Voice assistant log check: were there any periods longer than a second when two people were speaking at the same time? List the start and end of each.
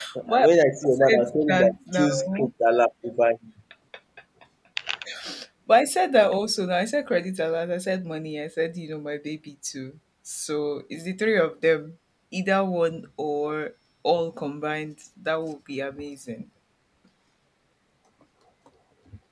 0.9-2.5

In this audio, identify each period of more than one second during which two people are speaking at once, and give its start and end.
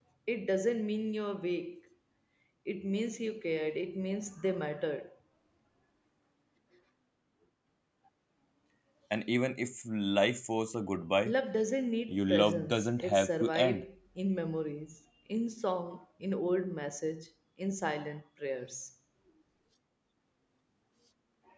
12.1-13.8

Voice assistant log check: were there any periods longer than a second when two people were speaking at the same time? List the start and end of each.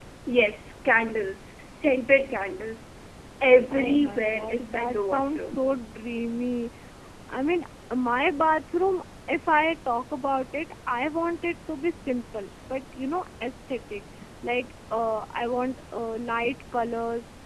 3.7-5.6

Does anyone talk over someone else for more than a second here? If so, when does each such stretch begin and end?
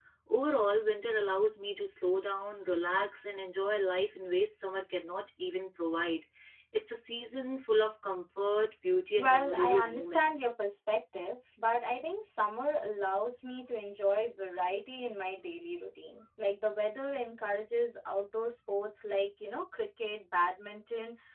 9.2-10.5

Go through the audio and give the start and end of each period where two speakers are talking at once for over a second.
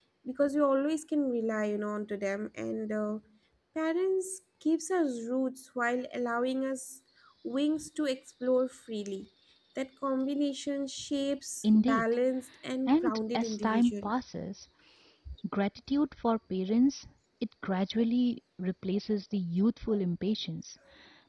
12.9-14.1

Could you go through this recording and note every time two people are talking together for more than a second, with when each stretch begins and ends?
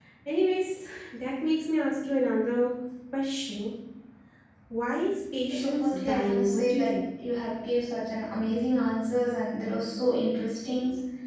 5.5-7.0

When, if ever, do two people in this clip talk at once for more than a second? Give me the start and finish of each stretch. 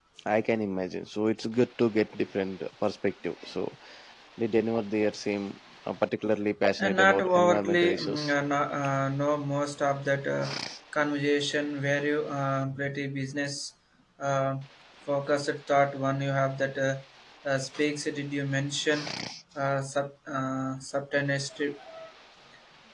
6.8-8.3

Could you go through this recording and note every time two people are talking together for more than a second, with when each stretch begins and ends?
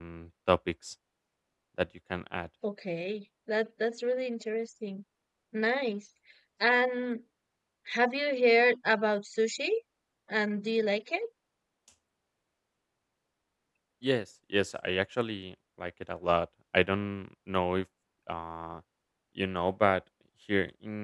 none

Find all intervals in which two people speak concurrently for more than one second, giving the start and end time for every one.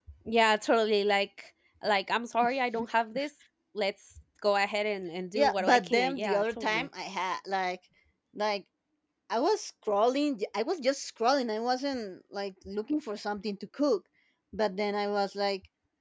5.3-6.9

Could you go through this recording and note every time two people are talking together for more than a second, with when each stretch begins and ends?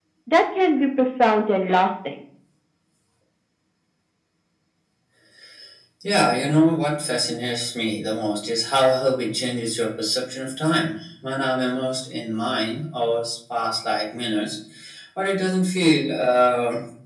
none

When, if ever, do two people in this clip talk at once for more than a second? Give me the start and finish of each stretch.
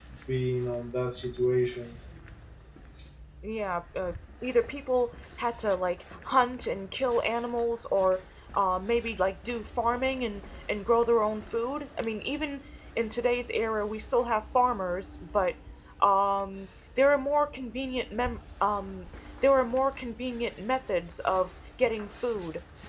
none

